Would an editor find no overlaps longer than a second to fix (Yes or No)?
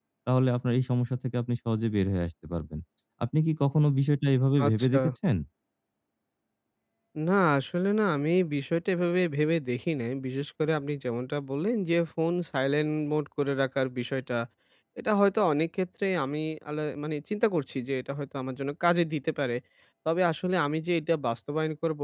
Yes